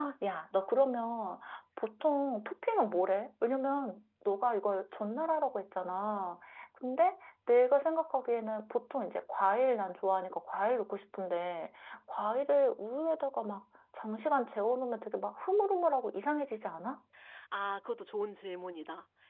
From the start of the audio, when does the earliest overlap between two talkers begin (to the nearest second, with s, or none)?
none